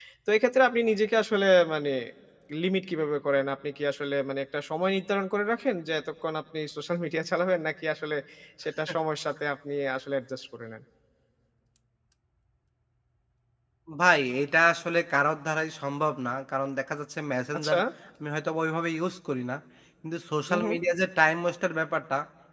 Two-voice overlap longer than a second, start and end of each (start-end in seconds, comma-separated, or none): none